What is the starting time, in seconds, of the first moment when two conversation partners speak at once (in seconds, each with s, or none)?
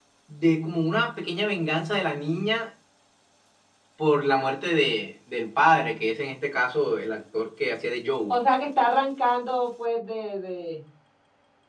none